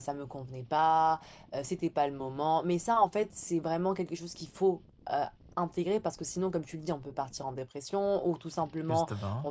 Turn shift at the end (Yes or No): No